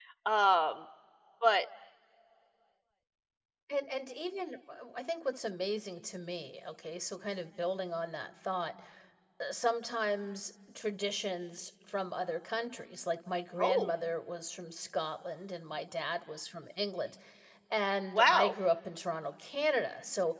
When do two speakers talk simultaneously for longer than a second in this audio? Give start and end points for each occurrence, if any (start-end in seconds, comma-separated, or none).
none